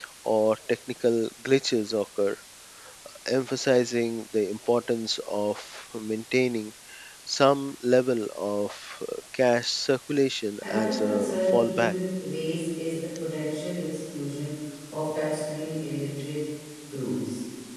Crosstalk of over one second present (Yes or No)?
Yes